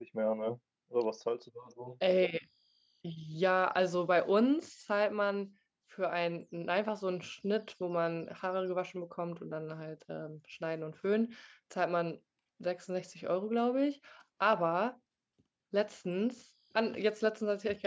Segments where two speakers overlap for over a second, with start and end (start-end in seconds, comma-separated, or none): none